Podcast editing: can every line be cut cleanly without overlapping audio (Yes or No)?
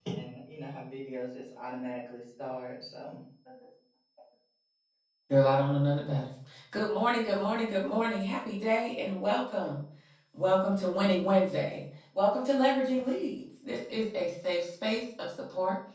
Yes